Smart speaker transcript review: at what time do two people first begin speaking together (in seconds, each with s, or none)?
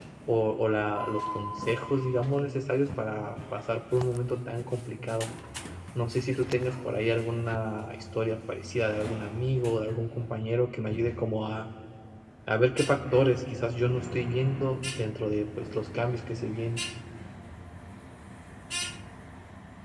none